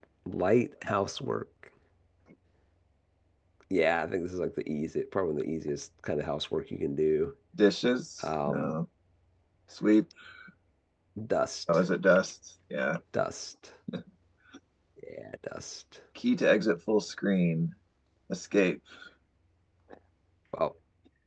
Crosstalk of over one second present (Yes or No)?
No